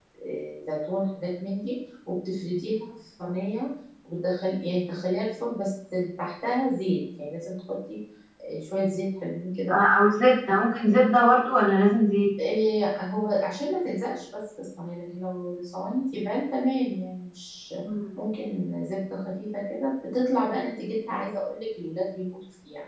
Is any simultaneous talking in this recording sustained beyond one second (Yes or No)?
No